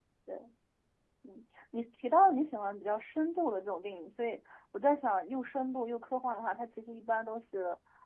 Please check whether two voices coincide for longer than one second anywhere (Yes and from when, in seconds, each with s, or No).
No